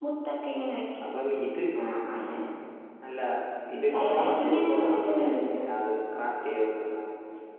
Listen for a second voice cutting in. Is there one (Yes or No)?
Yes